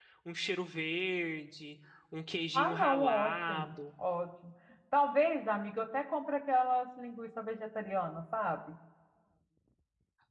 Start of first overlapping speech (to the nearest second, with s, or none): 3 s